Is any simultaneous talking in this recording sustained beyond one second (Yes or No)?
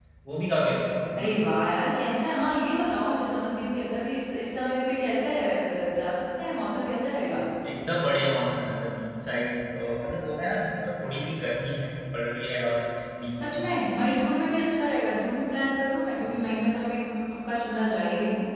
No